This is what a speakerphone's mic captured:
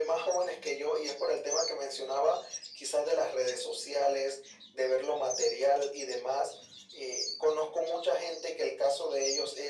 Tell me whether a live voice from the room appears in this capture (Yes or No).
No